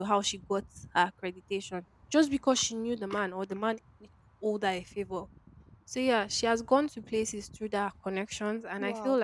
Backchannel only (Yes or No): Yes